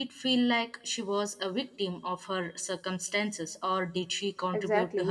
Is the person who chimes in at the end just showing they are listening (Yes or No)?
No